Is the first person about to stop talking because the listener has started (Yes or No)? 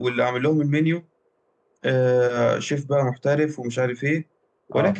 No